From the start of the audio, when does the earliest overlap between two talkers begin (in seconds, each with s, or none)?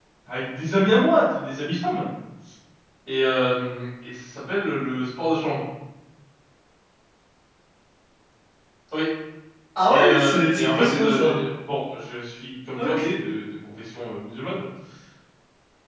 9.9 s